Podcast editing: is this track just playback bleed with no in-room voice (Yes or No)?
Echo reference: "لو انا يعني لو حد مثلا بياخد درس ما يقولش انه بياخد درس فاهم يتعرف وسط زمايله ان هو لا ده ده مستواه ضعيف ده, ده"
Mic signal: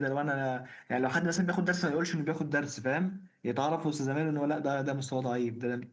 Yes